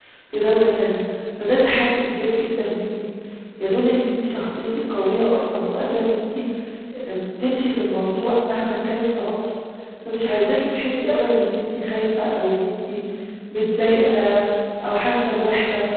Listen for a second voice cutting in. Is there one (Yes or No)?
No